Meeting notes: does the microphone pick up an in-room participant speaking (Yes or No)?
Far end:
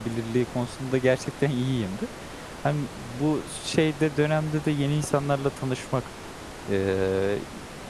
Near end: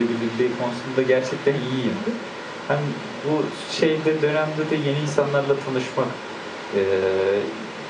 No